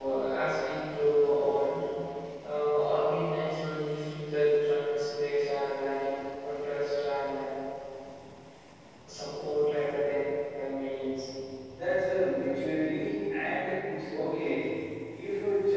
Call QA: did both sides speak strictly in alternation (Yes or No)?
Yes